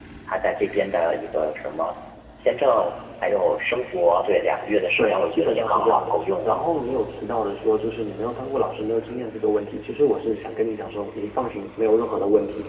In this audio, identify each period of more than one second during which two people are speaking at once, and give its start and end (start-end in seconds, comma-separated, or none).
5.0-6.6